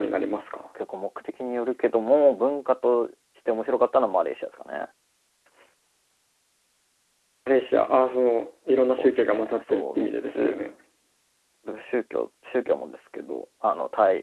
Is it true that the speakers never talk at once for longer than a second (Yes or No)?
No